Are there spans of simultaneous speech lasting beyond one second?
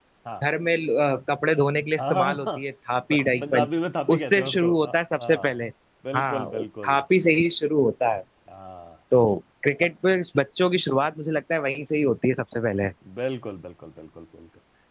Yes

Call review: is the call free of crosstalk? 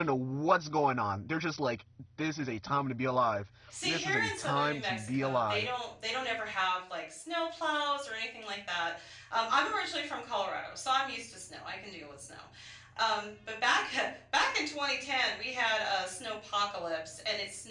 No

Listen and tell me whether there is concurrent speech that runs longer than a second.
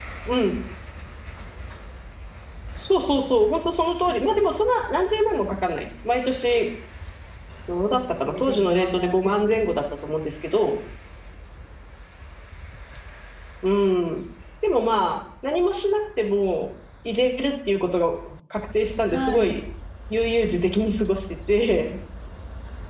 Yes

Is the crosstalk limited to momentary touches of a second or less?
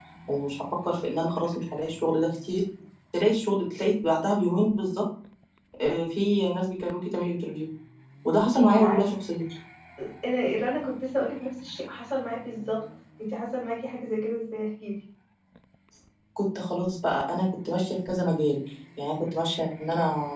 Yes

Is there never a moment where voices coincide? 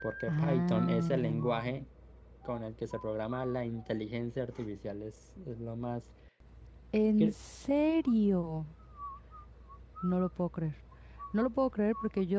No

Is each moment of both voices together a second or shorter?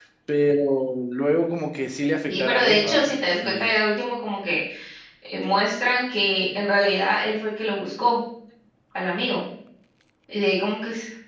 No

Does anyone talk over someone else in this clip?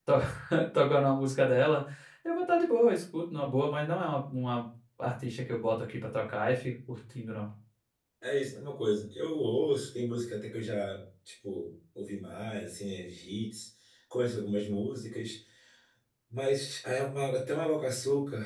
No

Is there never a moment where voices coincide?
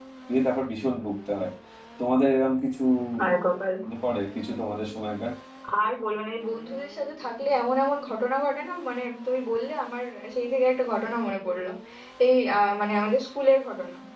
Yes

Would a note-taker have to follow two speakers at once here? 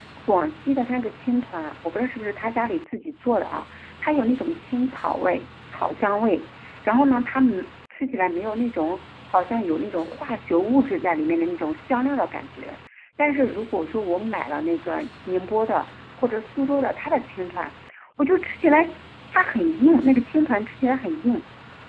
No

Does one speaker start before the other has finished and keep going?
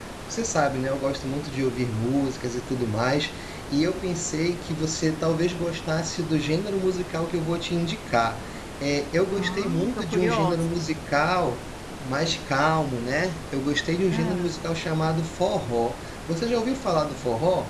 Yes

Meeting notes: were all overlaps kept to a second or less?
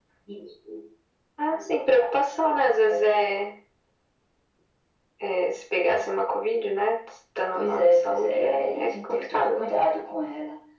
No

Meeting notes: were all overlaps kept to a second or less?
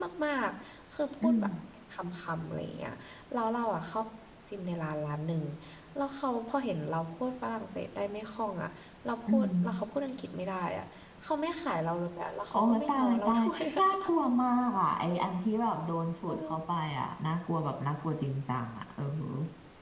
No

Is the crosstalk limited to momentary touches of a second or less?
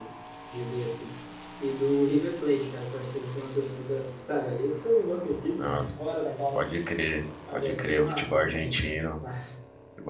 No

